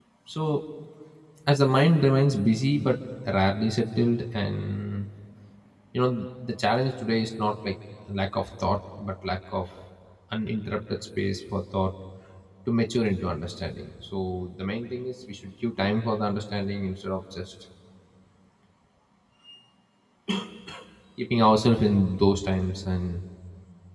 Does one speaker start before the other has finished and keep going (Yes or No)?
No